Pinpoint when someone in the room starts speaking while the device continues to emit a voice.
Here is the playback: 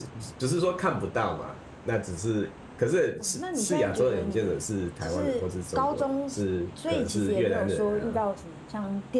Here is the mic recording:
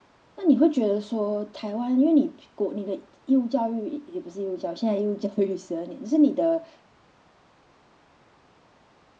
0.4 s

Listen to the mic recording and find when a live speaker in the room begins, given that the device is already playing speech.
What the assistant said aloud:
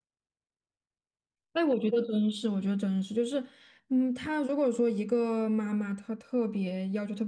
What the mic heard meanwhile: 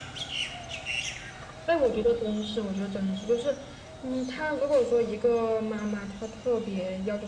none

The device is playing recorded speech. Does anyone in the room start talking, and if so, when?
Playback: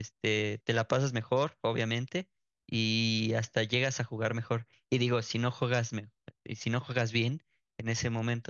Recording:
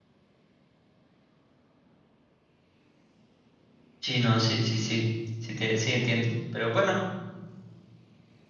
4.0 s

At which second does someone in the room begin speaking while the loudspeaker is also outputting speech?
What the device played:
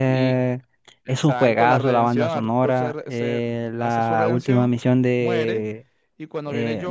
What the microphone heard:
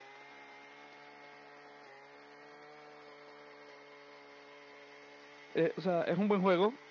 5.5 s

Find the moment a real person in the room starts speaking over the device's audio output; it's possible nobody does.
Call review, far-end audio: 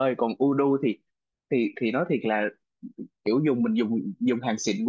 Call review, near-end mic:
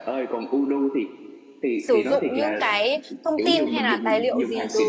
1.8 s

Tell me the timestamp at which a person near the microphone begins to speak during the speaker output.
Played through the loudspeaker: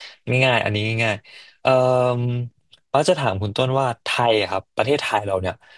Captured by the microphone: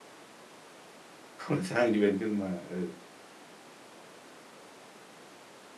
1.4 s

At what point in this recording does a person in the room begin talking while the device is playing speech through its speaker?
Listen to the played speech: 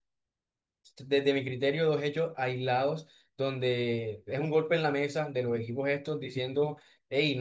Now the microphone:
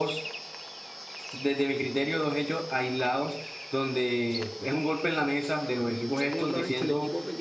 6.2 s

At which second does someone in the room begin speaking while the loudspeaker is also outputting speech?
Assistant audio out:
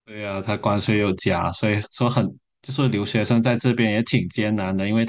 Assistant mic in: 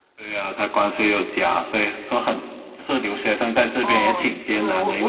3.8 s

